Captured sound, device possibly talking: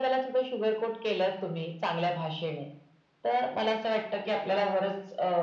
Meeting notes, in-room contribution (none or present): none